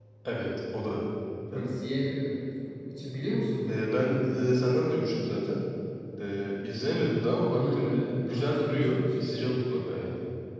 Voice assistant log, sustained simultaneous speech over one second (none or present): present